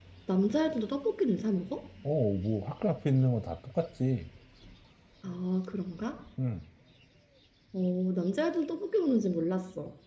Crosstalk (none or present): none